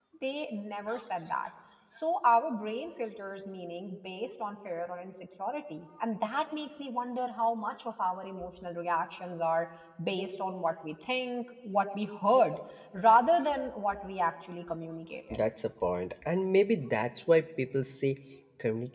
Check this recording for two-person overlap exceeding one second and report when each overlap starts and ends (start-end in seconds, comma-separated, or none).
none